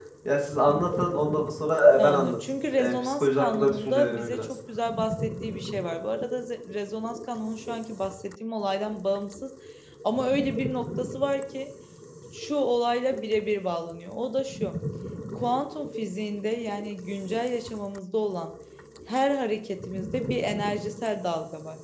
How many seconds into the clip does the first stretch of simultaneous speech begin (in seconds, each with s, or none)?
2.0 s